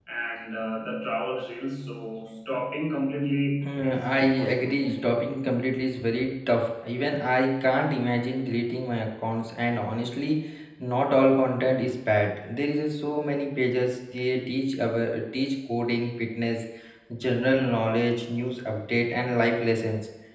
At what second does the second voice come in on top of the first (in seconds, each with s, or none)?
3.6 s